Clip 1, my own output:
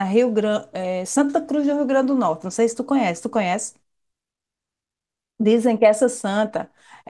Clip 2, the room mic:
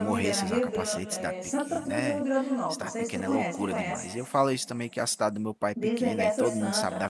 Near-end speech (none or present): present